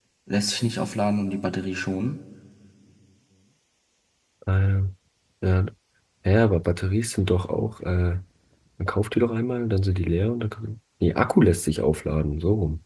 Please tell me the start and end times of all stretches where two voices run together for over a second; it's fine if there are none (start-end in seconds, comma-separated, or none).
none